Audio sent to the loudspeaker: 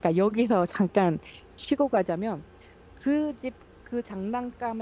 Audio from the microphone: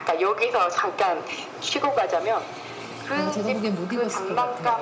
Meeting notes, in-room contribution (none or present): present